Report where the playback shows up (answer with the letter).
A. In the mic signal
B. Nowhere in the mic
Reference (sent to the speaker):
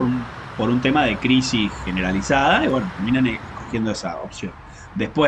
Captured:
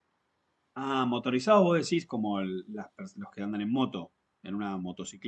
B